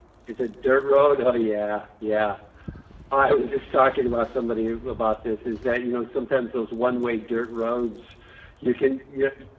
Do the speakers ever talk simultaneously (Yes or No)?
No